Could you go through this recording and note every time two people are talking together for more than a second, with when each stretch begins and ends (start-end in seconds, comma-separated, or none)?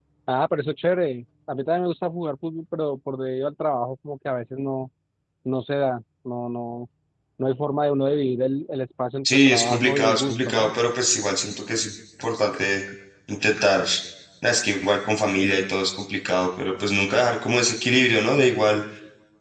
9.2-10.7